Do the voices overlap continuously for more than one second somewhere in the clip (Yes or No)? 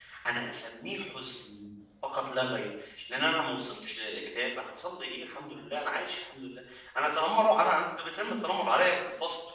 No